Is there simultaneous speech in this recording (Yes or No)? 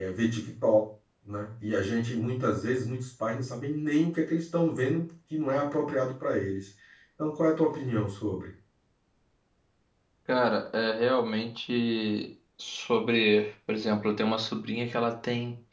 No